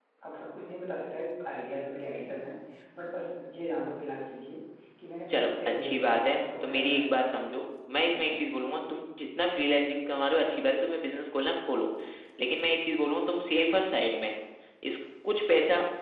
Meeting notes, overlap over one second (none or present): present